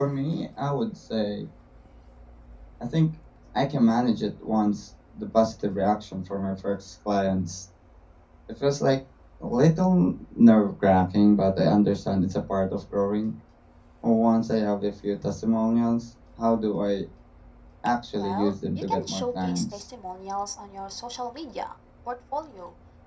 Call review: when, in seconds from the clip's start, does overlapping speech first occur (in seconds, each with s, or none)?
18.2 s